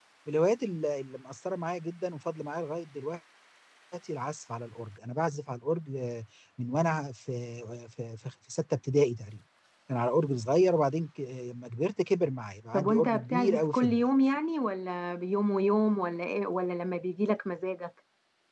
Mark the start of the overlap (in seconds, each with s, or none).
12.7 s